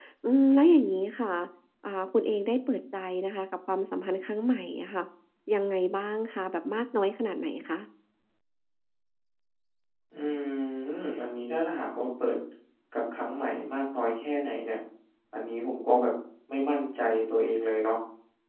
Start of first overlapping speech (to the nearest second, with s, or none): none